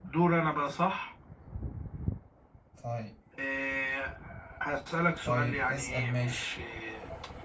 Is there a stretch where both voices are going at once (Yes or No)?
Yes